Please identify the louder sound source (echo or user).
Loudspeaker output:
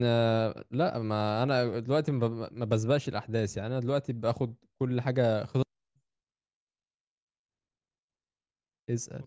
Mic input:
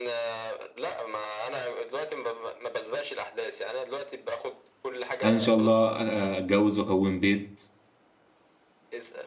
user